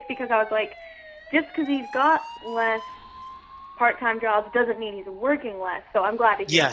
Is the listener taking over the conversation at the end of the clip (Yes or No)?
Yes